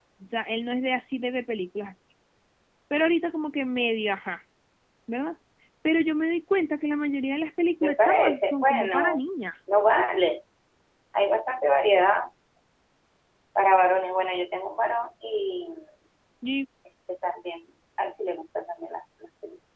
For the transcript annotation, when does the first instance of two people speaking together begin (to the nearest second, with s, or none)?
8 s